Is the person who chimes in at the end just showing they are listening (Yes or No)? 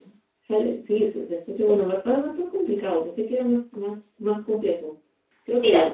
Yes